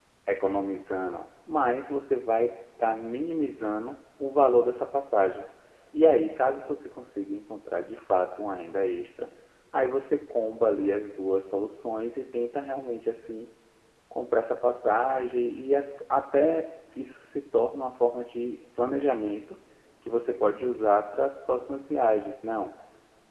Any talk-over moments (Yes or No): No